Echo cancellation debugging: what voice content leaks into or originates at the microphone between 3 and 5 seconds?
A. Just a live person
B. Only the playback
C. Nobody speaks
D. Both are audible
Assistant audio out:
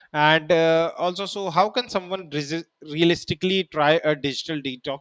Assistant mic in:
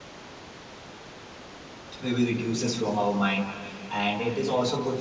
A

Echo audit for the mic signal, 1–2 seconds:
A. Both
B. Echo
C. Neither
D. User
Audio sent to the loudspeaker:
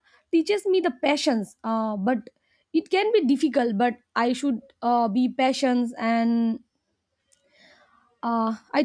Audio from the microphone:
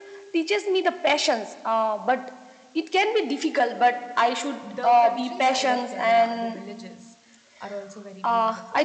B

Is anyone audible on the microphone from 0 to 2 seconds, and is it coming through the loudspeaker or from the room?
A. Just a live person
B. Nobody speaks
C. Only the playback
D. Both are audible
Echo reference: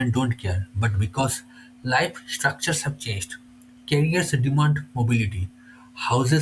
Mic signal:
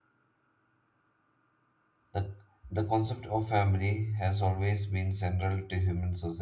B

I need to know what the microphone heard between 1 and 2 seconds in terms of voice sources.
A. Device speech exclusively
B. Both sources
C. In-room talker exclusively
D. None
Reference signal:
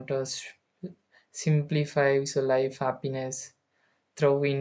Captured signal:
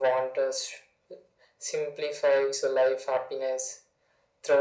A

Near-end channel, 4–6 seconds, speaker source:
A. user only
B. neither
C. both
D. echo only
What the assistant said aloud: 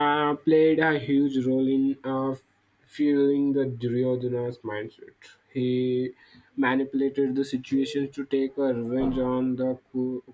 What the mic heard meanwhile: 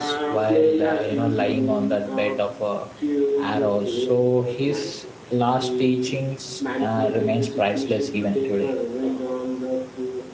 C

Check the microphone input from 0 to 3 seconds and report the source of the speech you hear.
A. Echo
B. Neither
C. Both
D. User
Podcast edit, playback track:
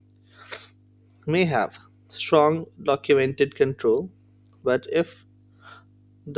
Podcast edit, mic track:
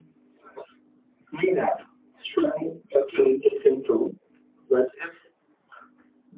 A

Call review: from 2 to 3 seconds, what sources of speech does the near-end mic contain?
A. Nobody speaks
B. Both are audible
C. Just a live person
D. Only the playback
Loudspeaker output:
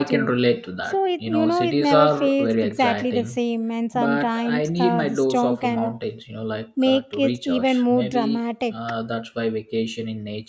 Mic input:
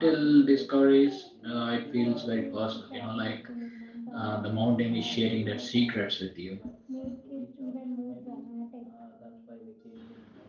B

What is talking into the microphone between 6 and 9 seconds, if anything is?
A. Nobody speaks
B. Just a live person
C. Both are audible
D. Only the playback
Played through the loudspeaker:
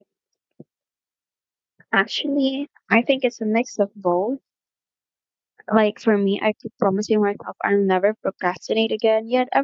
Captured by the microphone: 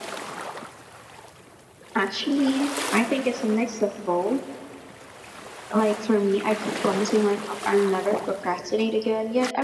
D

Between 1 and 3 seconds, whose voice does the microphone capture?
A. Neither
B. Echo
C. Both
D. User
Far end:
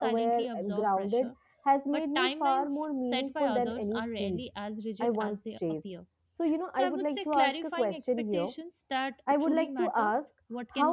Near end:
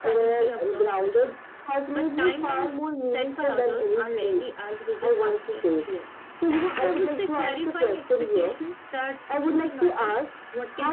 B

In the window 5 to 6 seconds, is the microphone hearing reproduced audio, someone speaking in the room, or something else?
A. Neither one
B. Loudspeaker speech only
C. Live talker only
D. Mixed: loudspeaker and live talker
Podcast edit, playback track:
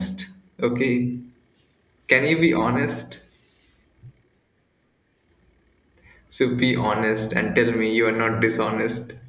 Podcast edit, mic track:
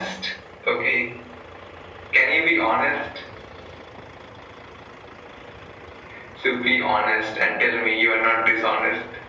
A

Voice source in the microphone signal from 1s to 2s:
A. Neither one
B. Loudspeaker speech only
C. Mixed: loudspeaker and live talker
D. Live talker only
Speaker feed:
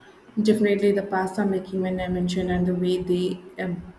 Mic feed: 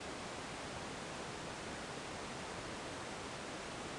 A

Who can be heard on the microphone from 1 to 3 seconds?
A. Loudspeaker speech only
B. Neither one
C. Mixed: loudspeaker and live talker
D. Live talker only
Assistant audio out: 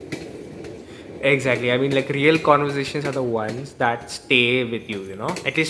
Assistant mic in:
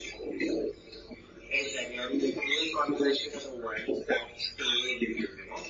A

